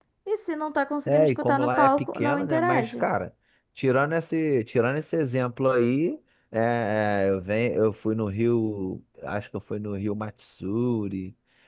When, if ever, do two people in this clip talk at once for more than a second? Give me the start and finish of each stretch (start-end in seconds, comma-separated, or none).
1.1-3.0